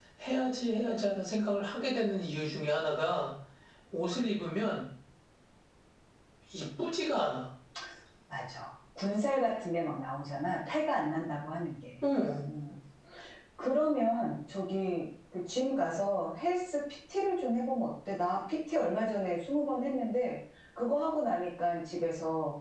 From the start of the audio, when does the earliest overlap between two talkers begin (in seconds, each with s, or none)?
none